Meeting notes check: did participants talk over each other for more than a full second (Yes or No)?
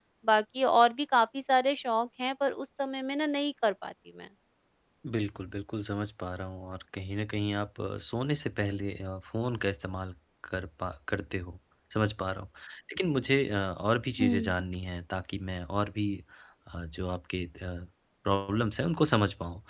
No